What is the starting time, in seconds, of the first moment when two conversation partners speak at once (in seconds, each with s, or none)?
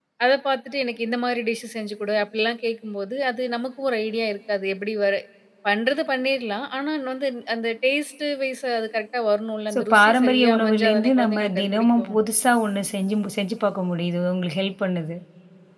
9.7 s